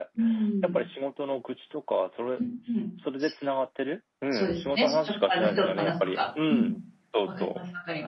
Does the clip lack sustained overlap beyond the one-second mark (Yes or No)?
No